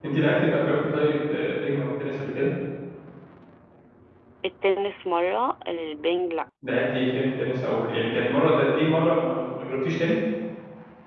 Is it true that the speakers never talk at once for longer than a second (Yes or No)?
Yes